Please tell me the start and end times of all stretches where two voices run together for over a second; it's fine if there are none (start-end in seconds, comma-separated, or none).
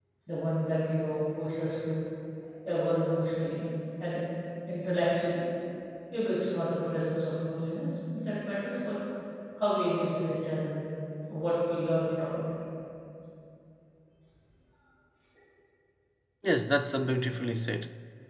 none